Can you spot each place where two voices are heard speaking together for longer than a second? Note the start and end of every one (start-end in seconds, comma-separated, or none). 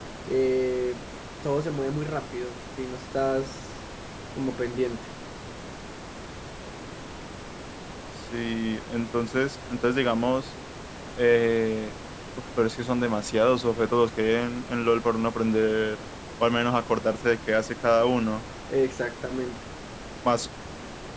none